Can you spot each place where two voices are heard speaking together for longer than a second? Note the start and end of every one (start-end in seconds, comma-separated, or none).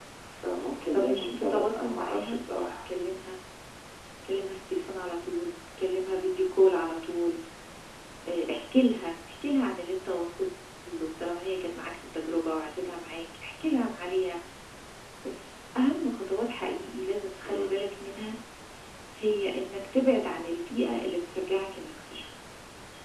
0.9-2.8